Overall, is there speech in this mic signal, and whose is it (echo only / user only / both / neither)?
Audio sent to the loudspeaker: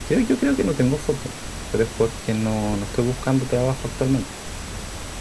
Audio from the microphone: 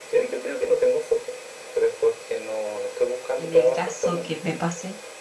both